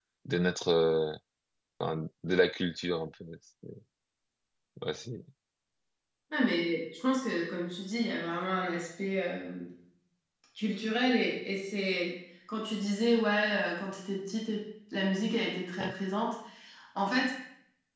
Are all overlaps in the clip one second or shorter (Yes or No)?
Yes